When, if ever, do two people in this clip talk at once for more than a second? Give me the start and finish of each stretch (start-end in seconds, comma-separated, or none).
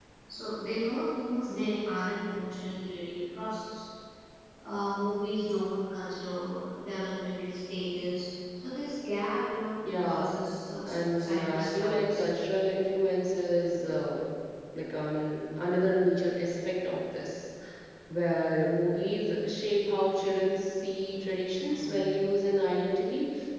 10.9-12.2